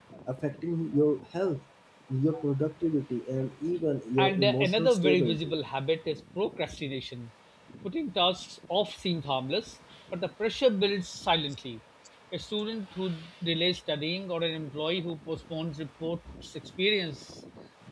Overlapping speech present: Yes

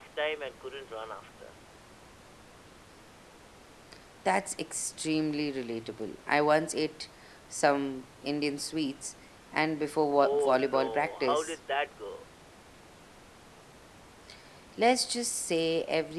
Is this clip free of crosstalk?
No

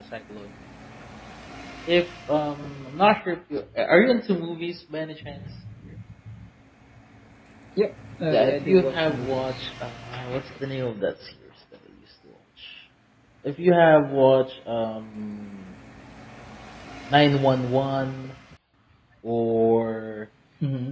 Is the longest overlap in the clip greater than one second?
Yes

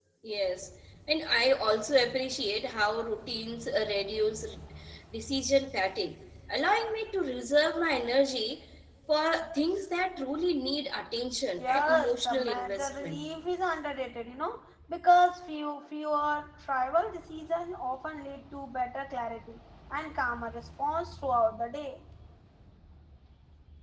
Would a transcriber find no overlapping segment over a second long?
No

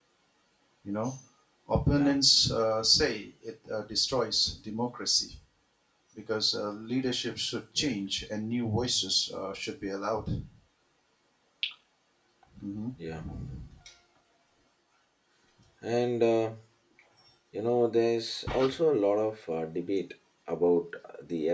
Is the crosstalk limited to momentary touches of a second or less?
Yes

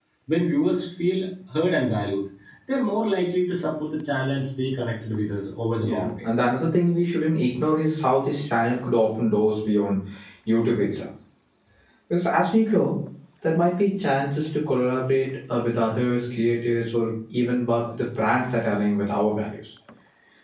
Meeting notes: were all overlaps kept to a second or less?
Yes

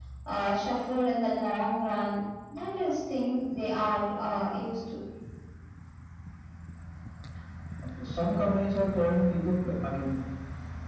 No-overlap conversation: Yes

